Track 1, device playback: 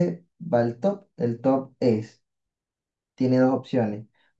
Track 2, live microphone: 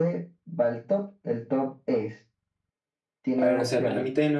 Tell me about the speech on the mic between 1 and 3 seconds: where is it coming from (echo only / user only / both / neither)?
echo only